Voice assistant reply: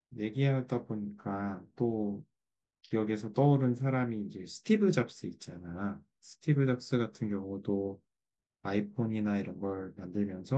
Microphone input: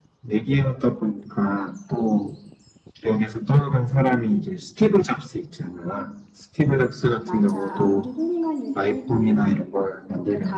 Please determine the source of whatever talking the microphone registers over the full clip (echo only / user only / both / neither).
both